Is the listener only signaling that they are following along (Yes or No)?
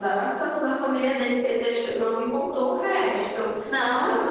Yes